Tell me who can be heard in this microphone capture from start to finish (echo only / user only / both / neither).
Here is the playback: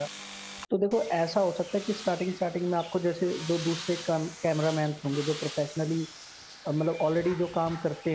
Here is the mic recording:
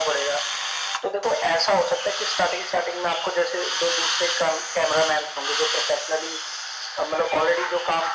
echo only